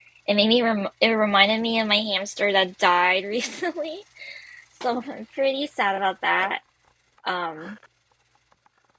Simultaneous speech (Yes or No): No